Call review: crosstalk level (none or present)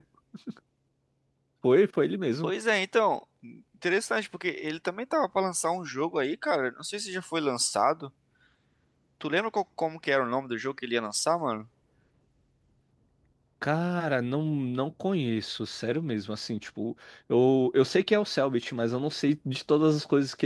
none